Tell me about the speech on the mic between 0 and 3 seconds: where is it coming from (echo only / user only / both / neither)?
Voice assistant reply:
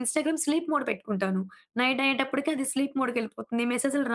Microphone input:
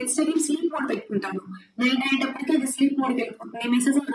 echo only